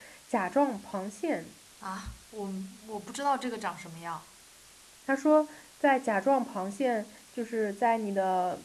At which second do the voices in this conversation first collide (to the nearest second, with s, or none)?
none